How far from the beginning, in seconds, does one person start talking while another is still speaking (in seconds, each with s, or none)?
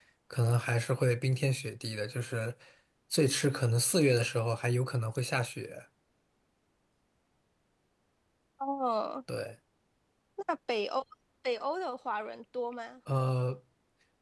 none